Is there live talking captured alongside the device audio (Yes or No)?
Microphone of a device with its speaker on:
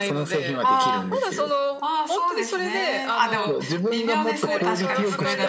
Yes